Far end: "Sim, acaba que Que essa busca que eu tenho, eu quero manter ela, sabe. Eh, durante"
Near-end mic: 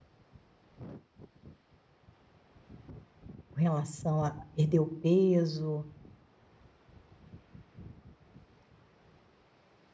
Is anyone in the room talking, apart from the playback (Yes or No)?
Yes